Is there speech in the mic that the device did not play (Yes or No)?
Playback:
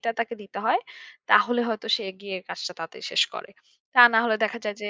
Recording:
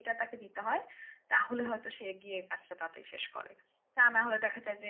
No